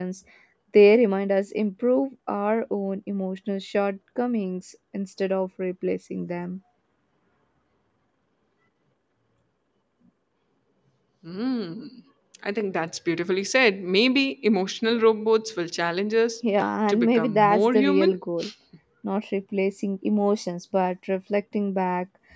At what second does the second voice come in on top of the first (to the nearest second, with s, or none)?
17 s